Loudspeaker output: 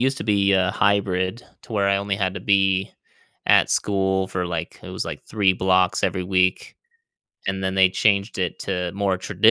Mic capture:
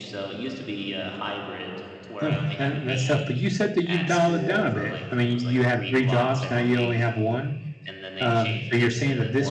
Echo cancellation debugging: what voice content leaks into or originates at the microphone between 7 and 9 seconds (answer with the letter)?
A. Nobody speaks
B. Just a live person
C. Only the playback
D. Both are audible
D